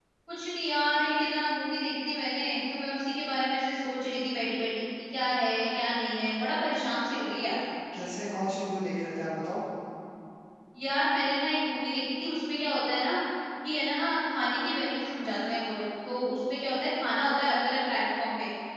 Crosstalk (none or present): none